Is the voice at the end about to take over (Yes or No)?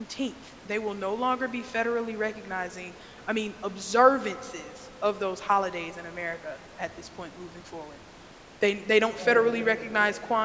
No